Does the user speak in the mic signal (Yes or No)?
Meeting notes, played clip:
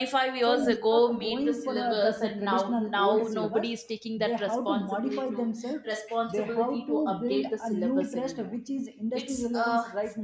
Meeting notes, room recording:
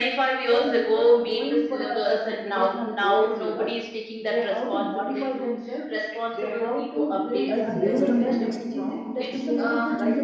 Yes